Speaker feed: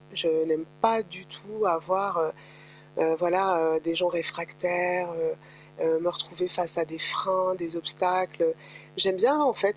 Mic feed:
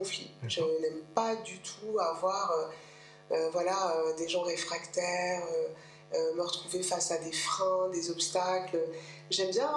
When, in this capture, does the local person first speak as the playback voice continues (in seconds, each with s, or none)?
0.4 s